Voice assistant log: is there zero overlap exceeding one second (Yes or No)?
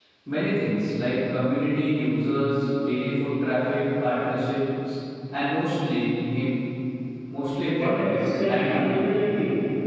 No